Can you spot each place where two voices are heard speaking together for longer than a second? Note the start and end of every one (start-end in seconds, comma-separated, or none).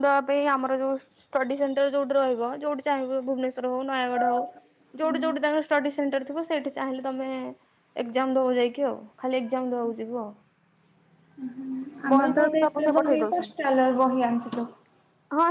12.1-13.5